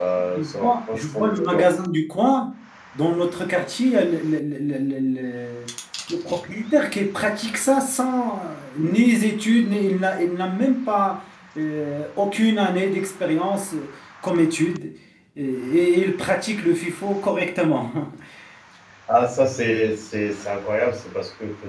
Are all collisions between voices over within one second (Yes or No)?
No